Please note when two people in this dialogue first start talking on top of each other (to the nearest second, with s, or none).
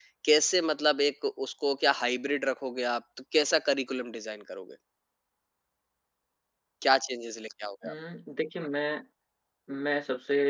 none